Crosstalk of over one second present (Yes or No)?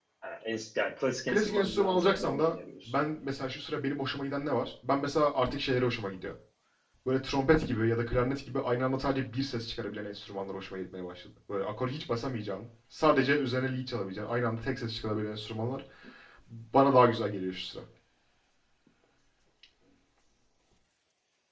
Yes